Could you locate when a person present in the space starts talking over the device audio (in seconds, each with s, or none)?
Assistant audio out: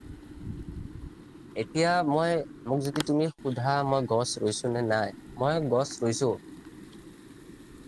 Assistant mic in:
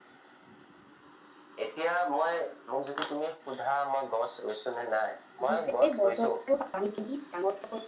5.5 s